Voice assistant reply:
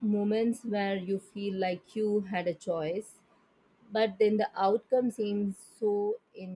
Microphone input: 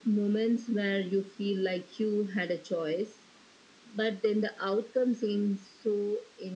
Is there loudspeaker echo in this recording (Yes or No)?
Yes